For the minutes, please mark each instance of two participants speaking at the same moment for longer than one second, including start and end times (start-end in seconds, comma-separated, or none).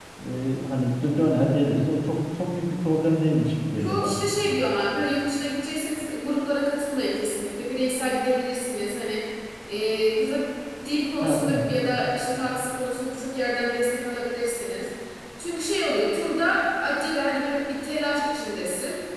none